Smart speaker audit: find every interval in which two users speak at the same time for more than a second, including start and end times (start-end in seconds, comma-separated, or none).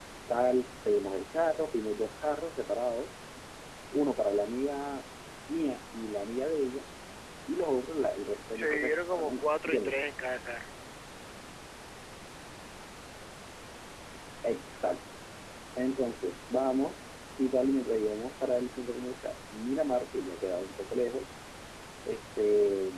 8.5-10.0